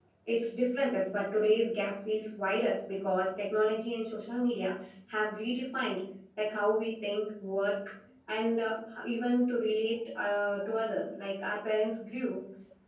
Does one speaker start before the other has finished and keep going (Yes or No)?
No